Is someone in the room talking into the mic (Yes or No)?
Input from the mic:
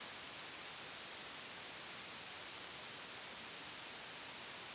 No